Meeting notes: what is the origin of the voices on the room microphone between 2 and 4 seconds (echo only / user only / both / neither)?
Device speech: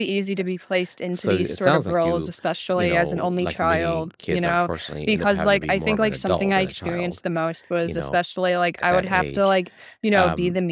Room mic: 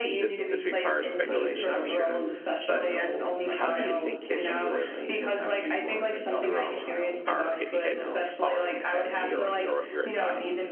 both